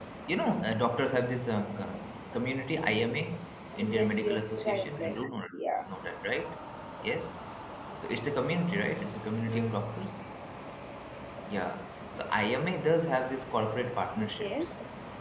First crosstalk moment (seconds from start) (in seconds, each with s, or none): 3.8 s